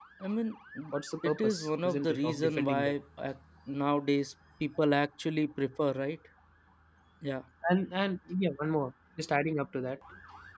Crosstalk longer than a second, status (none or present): present